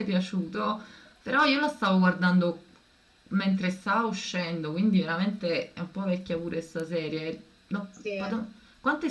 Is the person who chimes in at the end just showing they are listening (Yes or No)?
Yes